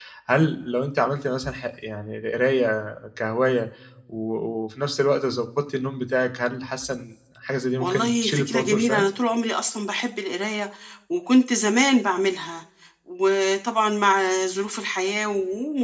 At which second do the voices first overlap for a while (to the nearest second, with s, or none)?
8 s